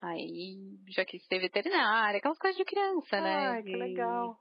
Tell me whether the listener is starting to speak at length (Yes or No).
Yes